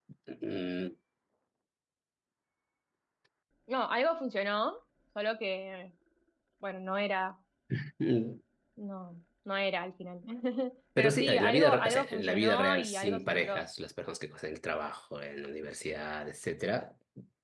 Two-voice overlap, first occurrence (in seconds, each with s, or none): 11.0 s